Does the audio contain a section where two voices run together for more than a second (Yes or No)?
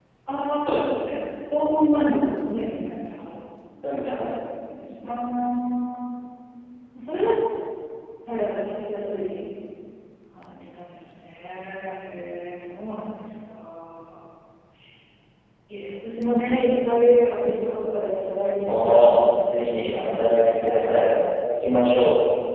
Yes